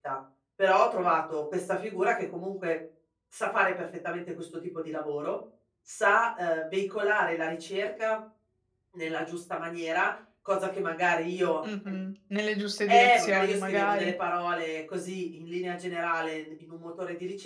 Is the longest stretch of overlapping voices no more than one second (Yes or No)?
No